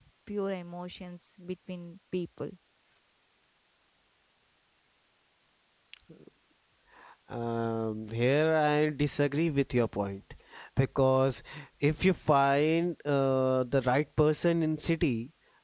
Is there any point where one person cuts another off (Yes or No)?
No